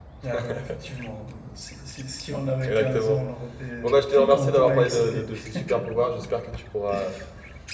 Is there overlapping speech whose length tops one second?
Yes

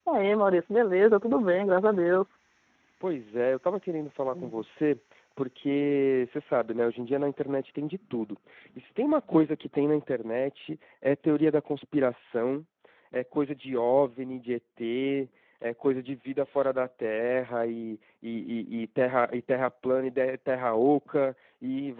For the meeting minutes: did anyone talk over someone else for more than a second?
No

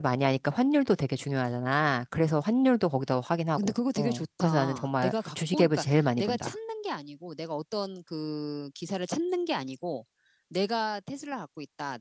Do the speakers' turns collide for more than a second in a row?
Yes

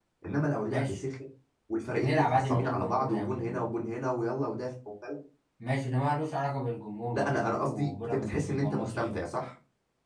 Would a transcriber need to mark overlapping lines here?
Yes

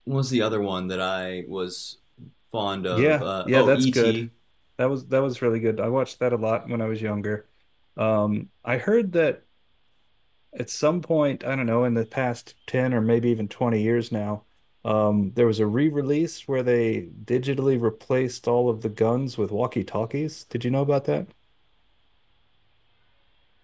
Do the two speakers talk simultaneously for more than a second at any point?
Yes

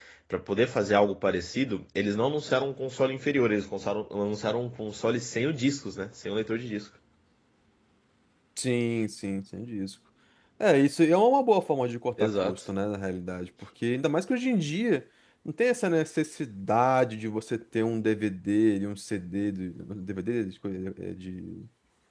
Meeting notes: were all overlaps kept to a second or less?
Yes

